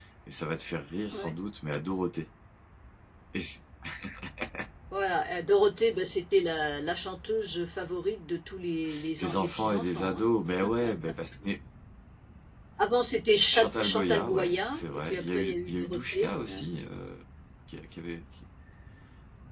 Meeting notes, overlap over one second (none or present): present